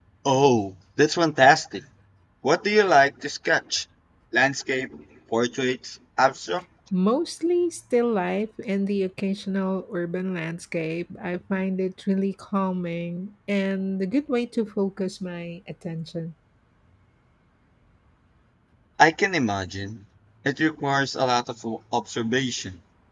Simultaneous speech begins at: none

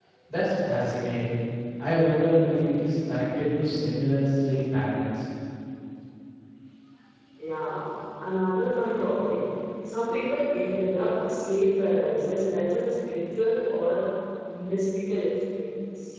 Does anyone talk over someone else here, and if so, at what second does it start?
none

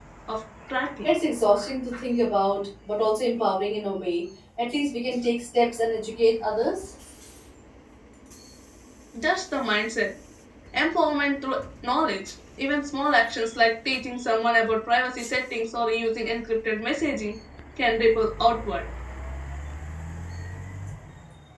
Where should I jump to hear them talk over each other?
none

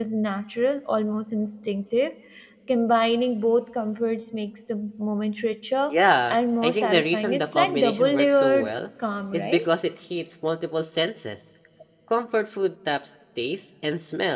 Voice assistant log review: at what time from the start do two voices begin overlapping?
6.3 s

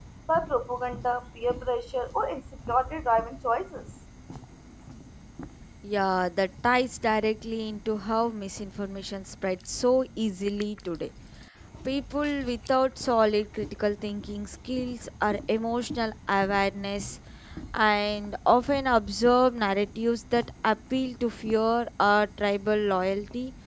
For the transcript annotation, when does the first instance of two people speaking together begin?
none

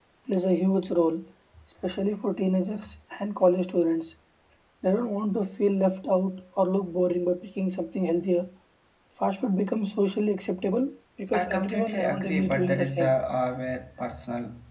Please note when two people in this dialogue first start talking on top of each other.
11.3 s

